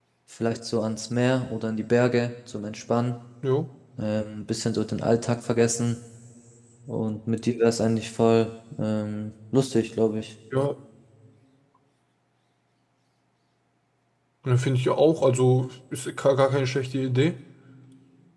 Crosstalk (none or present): none